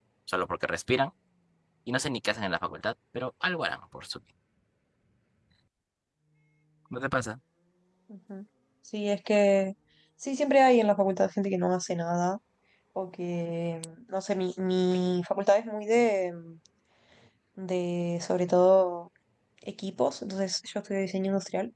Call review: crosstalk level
none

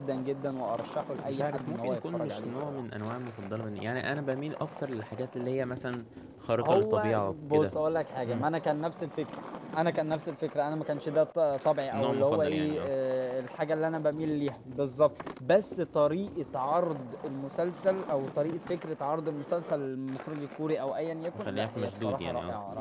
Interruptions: present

